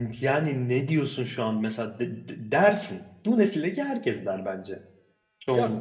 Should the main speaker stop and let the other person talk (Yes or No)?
Yes